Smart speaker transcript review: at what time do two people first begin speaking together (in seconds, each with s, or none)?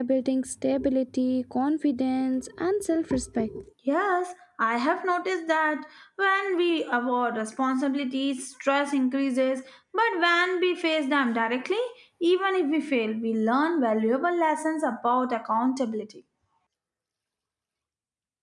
none